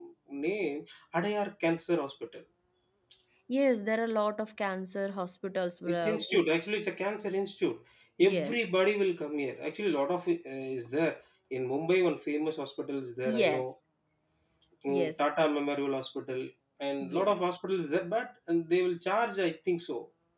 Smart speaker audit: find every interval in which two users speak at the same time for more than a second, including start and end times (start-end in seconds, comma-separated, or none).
none